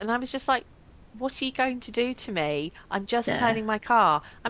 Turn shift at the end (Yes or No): No